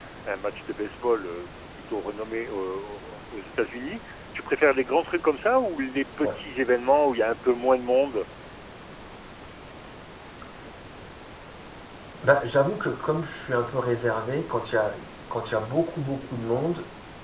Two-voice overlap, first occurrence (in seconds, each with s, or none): none